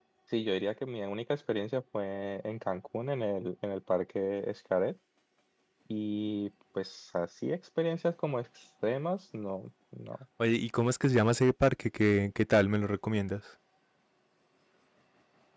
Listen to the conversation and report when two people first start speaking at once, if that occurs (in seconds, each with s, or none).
none